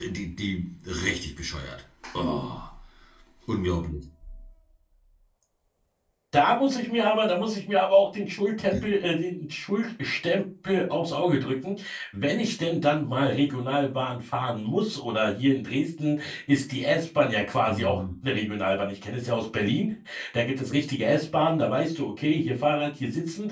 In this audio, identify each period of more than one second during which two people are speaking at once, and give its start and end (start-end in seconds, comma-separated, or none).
none